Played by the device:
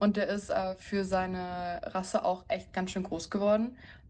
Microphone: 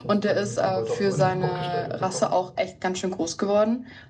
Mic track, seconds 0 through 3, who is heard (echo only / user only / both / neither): both